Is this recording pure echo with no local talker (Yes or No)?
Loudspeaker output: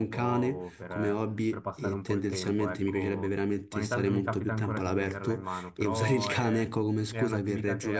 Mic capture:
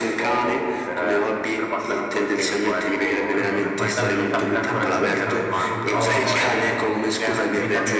No